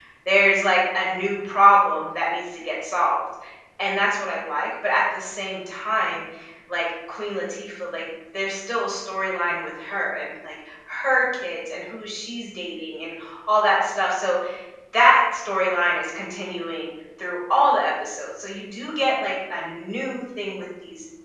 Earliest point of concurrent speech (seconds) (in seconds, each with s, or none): none